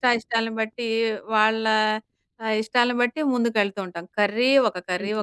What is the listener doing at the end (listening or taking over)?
listening